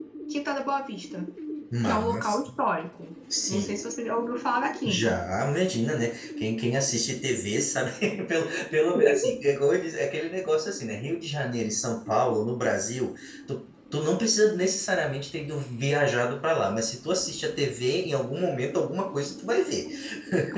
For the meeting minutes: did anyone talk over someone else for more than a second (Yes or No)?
No